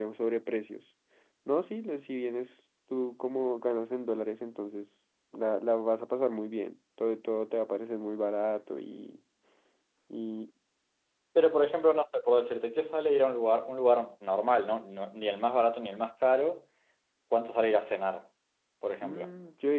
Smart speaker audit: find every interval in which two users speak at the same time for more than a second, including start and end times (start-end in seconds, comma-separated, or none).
none